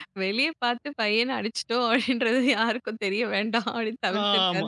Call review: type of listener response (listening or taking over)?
taking over